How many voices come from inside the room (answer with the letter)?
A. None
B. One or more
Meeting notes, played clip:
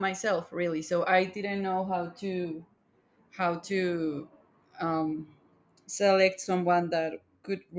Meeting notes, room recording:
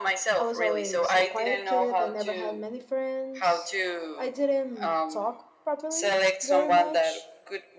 B